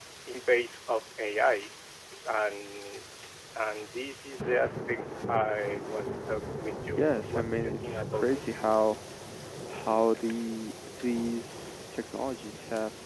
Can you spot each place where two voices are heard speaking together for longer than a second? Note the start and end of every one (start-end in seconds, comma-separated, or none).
7.0-8.6